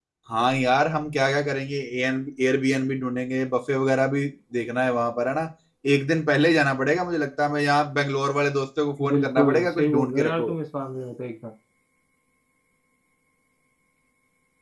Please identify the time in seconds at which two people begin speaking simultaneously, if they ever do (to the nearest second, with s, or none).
9 s